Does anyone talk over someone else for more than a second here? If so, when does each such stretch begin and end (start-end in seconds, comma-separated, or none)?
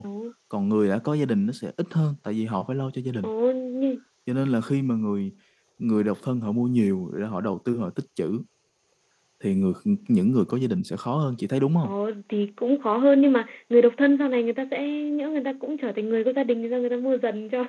none